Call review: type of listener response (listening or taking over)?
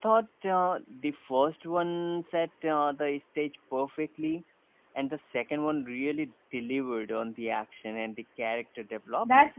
taking over